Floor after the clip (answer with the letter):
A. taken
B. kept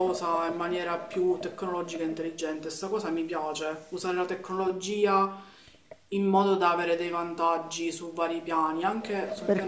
A